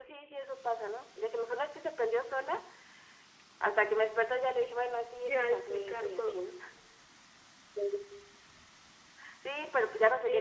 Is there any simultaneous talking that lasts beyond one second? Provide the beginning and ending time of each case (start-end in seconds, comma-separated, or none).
5.3-6.5